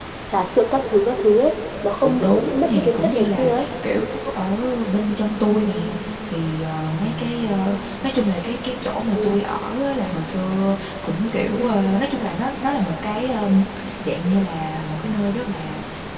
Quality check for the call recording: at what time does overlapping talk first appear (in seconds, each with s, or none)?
2.0 s